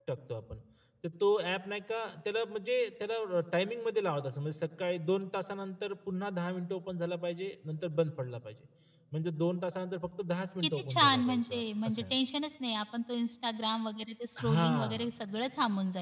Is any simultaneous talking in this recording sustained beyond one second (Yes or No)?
Yes